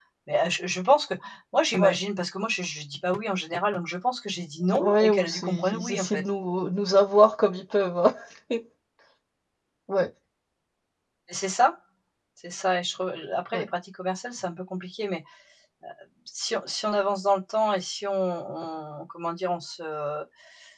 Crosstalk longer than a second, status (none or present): present